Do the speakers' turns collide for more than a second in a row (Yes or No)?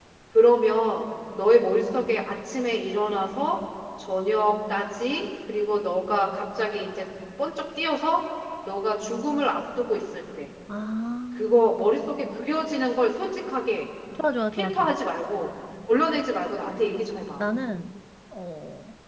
No